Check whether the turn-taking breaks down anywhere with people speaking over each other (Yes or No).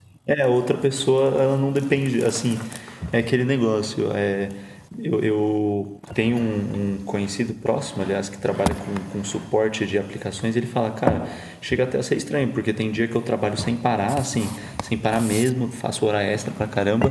No